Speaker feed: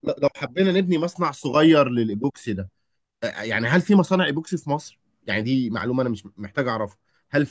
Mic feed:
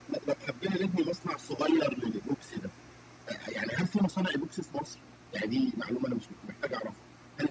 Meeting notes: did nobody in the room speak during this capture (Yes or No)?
Yes